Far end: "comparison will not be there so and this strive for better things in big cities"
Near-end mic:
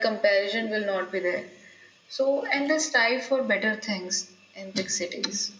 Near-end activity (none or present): none